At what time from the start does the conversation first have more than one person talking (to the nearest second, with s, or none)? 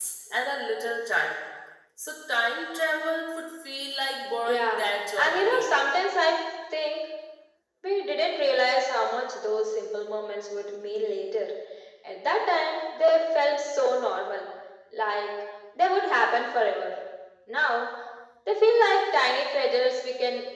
4 s